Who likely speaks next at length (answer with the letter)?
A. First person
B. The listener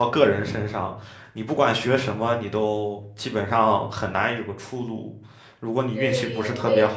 B